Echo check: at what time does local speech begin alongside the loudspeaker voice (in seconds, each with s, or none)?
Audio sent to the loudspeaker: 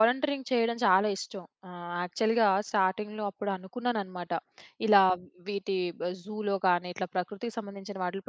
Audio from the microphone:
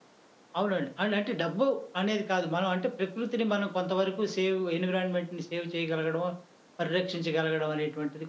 0.6 s